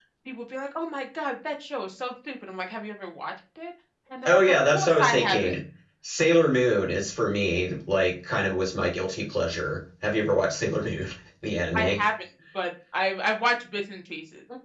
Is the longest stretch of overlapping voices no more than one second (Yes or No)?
No